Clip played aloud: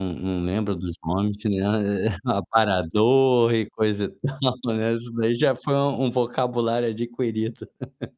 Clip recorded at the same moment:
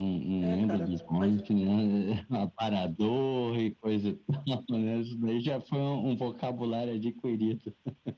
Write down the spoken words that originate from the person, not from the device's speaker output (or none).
É cara, faz